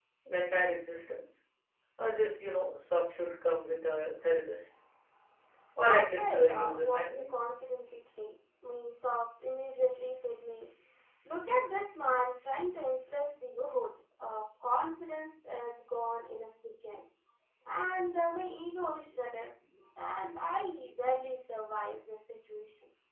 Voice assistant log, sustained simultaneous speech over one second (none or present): present